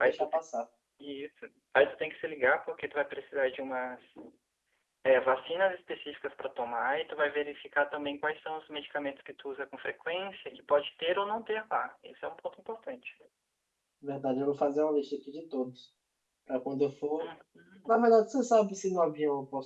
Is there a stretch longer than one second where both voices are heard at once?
No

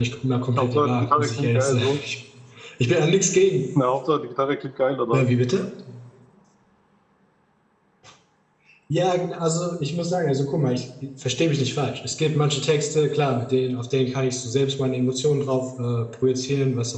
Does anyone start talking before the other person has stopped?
Yes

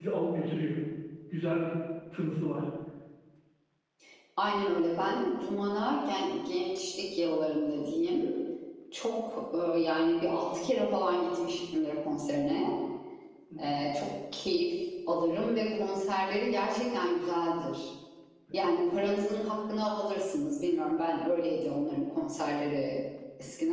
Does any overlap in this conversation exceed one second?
No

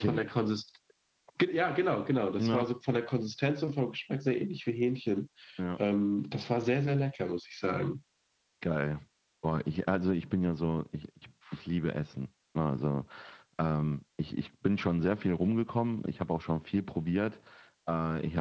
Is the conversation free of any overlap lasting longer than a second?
Yes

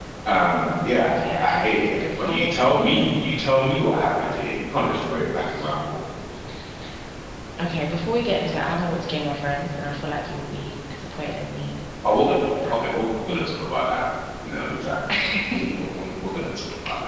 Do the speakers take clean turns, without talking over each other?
No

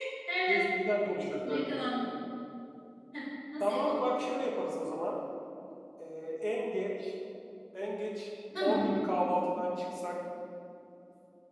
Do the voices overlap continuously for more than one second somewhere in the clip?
No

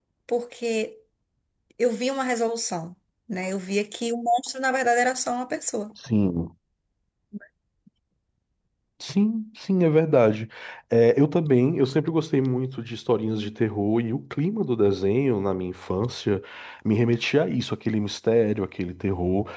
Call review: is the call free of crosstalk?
Yes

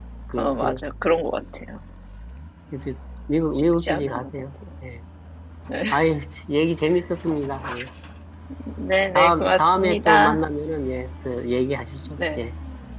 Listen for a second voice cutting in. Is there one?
Yes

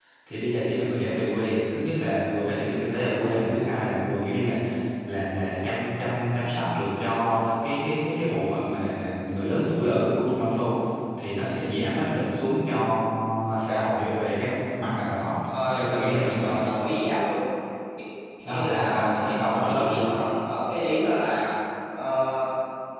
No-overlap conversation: No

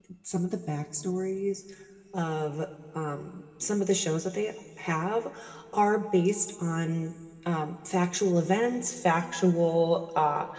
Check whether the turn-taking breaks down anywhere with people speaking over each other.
No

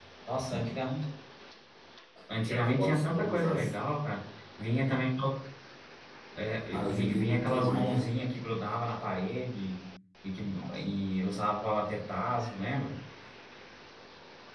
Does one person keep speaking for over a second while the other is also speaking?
Yes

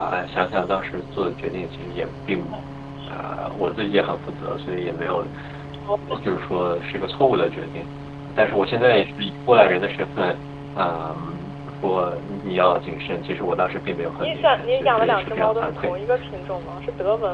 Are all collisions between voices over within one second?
No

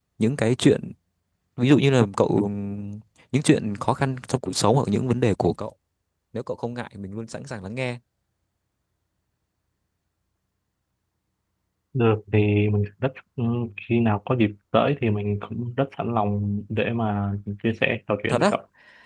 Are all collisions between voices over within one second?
Yes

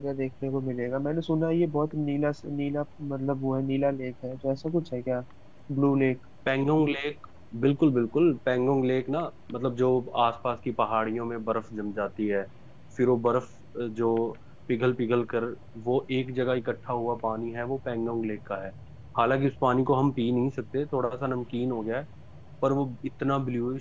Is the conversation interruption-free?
Yes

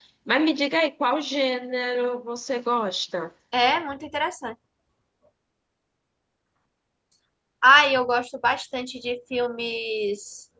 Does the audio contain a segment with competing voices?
No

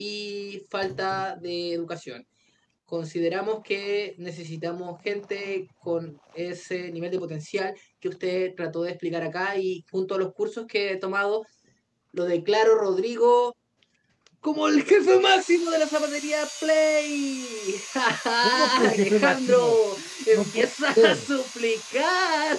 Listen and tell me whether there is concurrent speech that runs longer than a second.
Yes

